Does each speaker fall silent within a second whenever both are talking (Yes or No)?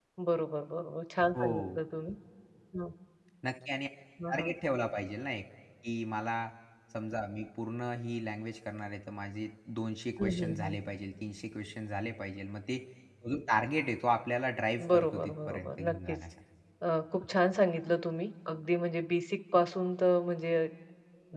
No